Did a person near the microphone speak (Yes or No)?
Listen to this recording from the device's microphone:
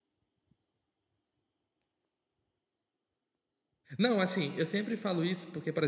Yes